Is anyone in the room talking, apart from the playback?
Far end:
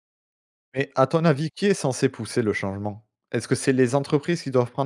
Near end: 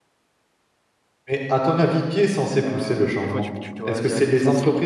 Yes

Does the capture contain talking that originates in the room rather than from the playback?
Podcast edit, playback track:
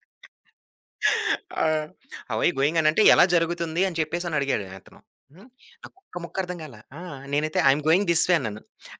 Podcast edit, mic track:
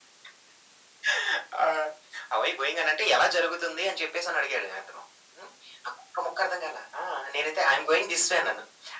No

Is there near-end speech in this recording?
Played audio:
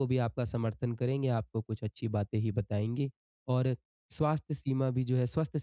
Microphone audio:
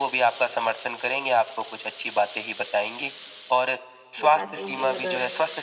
Yes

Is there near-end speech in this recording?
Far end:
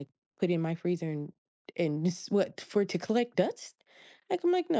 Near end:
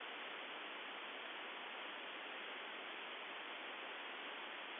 No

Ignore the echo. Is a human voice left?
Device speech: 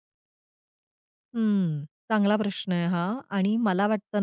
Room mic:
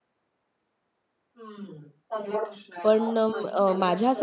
Yes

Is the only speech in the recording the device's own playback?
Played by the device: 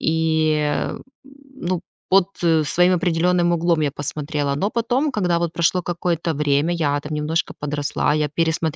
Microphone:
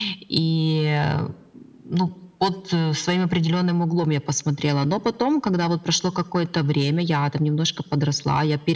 Yes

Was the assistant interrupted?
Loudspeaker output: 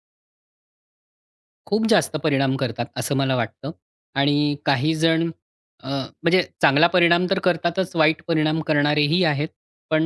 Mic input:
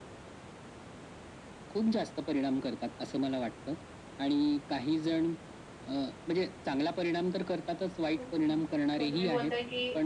Yes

